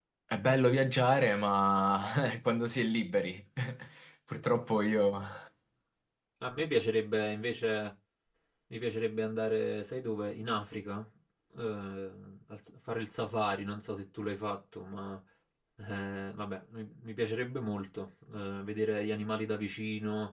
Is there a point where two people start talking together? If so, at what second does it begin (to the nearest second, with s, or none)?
none